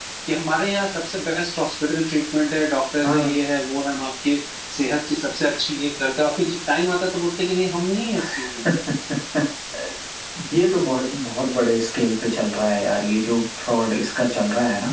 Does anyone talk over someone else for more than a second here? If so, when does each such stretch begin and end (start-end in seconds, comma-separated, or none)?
none